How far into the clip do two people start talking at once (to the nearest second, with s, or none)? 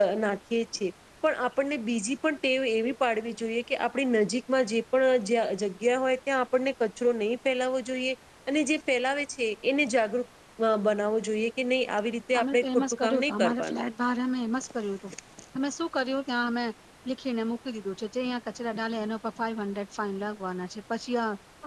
12 s